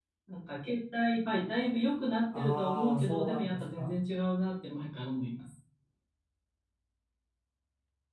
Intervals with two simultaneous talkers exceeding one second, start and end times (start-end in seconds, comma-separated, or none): 2.4-3.9